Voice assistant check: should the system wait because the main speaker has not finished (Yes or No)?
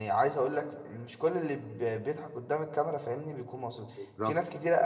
Yes